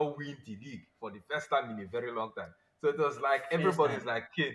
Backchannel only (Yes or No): Yes